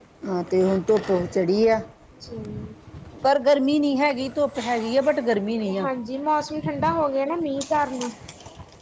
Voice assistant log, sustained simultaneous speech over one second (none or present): none